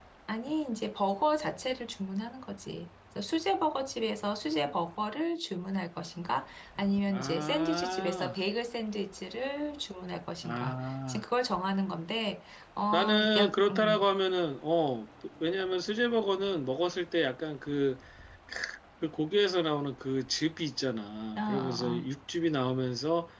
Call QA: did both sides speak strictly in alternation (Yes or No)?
No